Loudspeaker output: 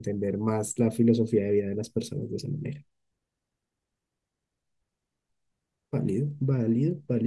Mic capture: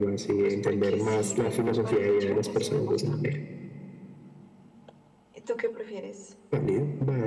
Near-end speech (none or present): present